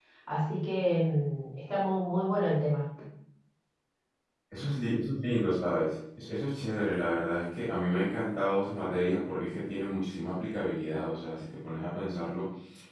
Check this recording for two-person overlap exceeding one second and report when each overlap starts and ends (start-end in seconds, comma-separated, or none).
none